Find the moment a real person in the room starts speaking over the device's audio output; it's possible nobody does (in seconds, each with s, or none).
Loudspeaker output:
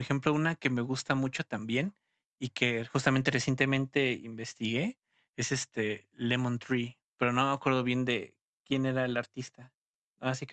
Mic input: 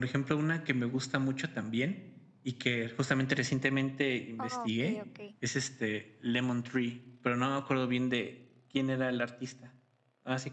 4.4 s